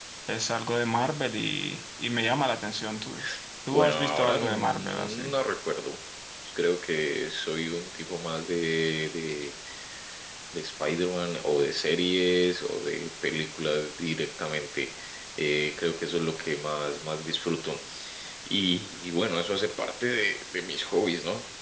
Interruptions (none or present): present